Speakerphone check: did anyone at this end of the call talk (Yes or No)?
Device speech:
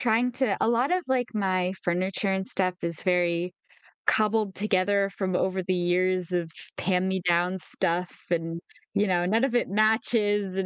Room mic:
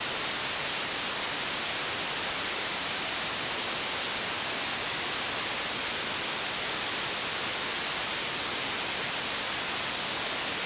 No